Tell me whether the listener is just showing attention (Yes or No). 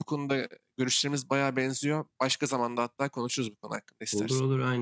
No